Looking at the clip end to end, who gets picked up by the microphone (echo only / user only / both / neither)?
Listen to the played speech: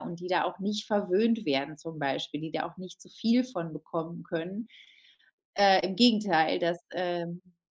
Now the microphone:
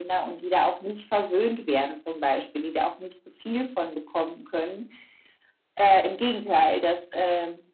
echo only